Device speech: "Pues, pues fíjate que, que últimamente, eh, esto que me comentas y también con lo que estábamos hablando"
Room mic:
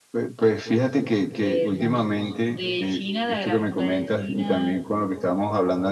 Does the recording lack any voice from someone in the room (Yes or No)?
No